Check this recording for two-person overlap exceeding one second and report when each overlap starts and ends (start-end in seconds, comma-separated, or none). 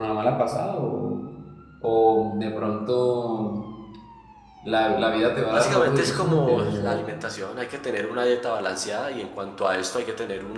5.5-7.0